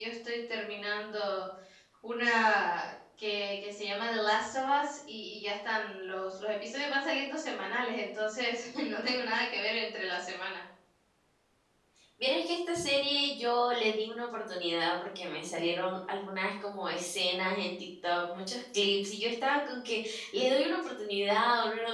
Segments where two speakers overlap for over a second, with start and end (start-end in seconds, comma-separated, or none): none